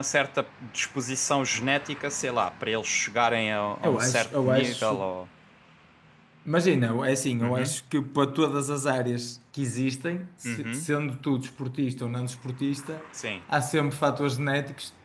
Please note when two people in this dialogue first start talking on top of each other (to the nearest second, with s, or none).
4 s